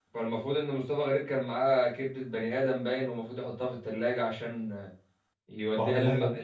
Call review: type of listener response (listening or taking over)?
listening